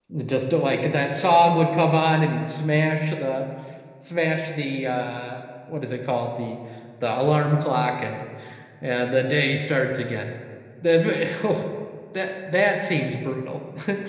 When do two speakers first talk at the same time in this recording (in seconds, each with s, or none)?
none